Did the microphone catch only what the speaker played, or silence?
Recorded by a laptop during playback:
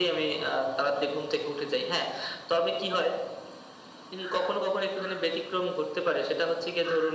Yes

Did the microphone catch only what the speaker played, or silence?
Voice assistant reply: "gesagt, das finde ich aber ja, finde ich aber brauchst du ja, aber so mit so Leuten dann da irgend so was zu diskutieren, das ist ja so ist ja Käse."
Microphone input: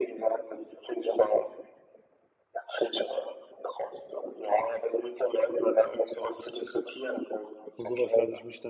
No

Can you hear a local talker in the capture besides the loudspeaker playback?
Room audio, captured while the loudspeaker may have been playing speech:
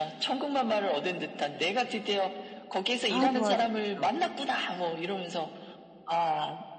Yes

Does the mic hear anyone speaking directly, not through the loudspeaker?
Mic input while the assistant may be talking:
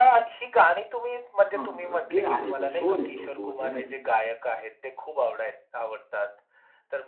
Yes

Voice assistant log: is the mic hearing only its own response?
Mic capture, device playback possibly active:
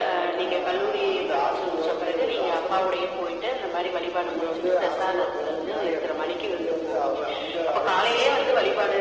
Yes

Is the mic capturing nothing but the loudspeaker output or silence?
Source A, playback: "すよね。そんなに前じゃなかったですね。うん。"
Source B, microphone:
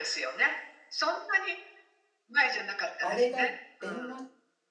No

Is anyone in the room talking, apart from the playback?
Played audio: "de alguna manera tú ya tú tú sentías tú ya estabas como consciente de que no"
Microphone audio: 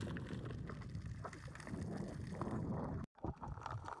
No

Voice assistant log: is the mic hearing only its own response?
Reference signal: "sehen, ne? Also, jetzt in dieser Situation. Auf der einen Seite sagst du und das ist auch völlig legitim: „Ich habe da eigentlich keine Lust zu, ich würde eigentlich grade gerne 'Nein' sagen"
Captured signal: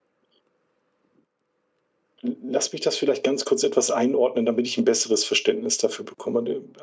No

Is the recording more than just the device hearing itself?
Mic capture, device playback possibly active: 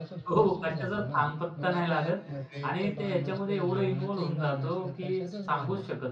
Yes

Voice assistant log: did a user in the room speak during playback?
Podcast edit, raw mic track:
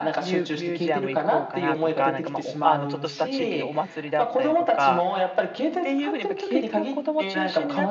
Yes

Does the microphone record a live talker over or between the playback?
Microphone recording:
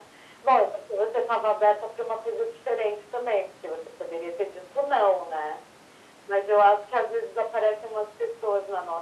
No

